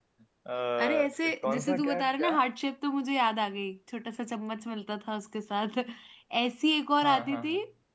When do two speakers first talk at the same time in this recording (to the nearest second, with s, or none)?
1 s